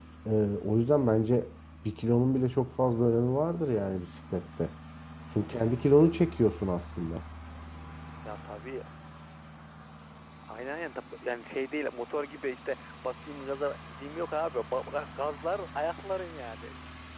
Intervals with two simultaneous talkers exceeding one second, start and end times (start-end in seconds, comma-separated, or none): none